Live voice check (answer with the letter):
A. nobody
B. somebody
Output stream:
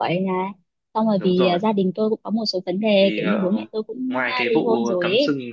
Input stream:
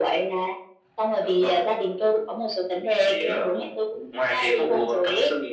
A